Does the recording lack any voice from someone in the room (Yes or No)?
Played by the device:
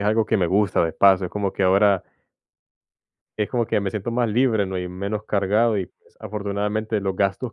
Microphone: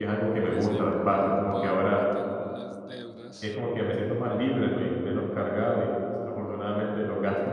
No